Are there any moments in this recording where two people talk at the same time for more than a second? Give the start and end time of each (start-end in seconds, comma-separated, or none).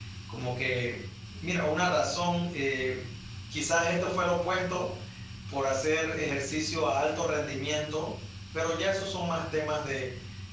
none